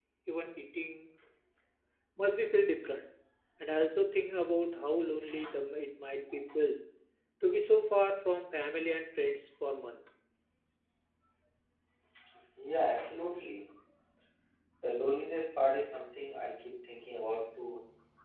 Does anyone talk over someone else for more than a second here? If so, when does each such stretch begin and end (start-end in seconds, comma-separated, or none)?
none